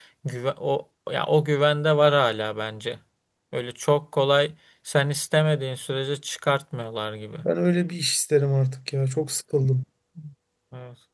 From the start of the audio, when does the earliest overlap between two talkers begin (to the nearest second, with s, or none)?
none